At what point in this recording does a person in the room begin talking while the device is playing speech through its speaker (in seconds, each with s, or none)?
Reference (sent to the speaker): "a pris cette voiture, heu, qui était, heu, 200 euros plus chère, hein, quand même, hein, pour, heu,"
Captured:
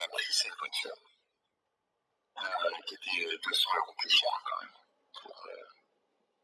none